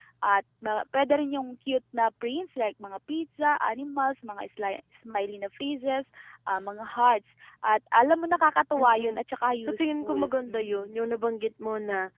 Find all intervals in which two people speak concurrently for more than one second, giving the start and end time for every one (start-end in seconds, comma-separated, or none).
9.6-10.9